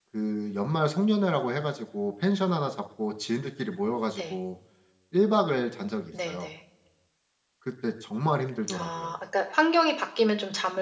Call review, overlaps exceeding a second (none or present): none